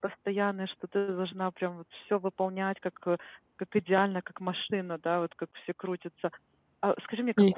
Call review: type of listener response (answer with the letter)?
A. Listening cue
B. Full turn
A